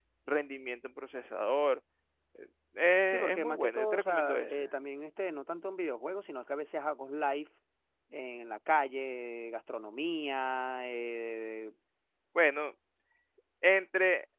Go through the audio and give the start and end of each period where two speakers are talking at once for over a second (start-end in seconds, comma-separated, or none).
3.1-4.6